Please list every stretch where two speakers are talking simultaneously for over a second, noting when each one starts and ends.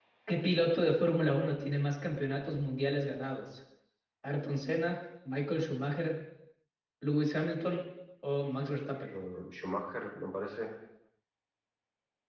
none

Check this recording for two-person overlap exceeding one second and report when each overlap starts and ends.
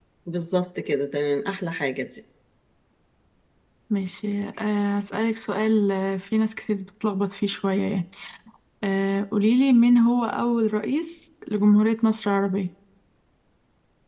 none

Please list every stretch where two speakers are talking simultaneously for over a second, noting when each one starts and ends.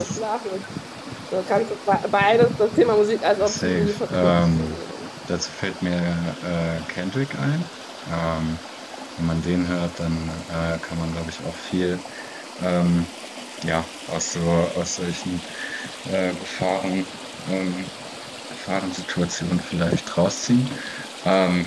3.4-4.8

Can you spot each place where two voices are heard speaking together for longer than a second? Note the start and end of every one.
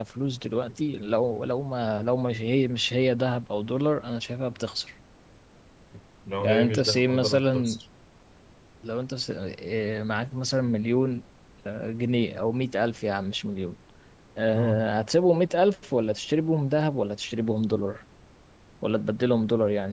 6.4-7.8

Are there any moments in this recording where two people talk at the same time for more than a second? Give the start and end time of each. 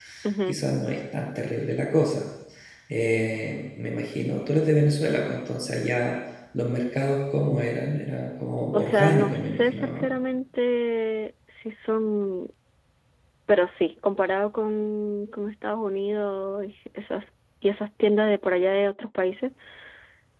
8.7-10.1

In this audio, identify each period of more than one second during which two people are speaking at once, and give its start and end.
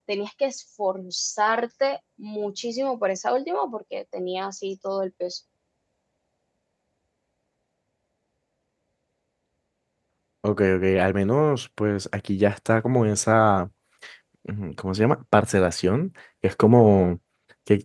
none

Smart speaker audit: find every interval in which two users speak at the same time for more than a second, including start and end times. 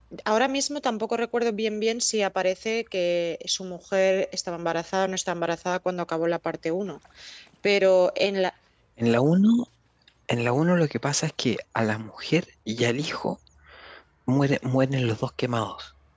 none

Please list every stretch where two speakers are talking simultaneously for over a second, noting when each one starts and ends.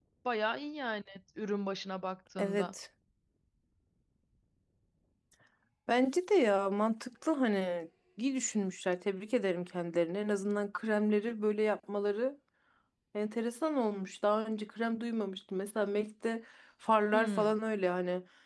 none

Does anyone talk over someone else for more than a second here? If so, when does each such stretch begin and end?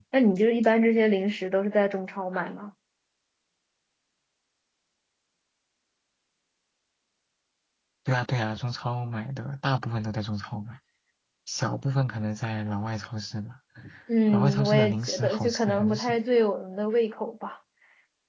14.3-16.1

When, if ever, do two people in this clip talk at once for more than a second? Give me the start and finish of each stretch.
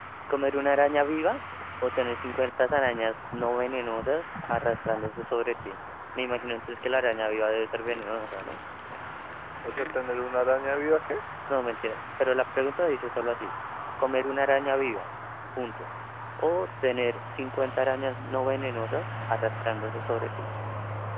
none

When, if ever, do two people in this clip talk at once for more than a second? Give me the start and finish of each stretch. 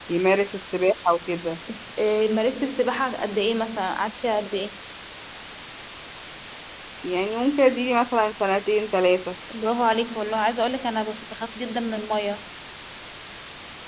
none

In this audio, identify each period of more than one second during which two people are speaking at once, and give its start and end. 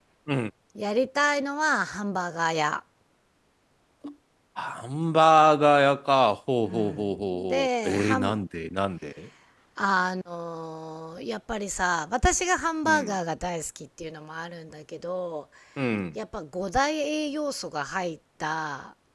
6.6-8.4

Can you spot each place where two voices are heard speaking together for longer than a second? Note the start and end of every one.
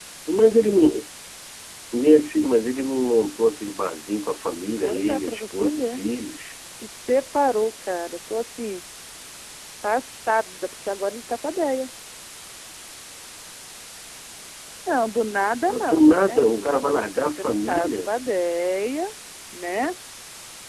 4.8-6.0, 15.7-18.2

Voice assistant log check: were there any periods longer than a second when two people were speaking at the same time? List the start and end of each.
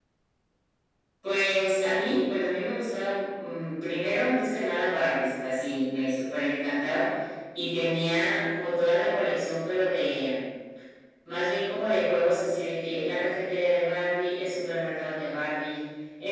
none

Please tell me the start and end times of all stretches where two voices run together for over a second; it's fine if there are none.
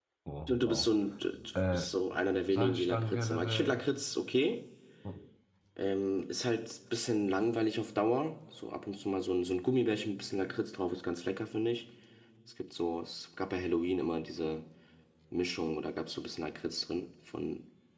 2.5-3.8

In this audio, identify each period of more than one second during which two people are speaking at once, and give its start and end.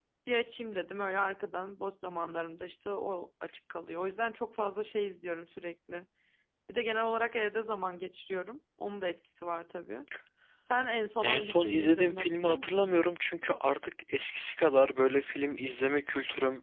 11.2-12.9

